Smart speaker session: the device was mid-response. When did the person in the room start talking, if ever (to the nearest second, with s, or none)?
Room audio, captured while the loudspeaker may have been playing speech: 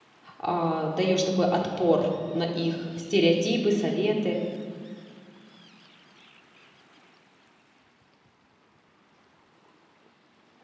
0 s